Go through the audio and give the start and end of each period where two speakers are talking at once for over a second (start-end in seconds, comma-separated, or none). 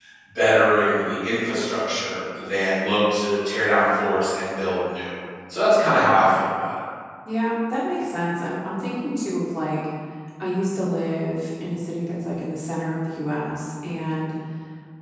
none